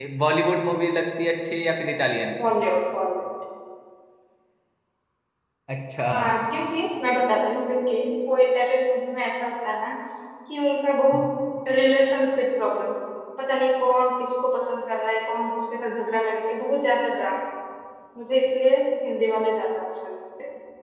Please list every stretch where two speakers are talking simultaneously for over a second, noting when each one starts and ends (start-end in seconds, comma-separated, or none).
none